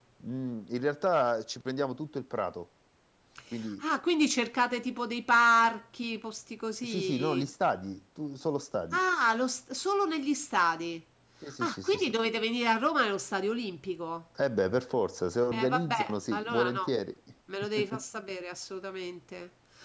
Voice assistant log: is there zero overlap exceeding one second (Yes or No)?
No